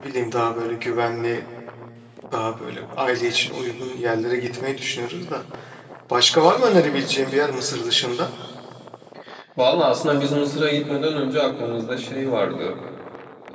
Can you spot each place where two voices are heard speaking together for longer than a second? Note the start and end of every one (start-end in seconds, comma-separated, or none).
none